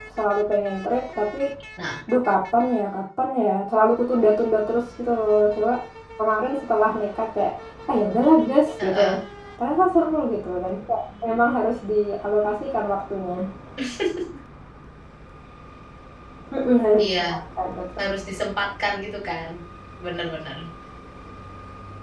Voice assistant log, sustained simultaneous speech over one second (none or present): none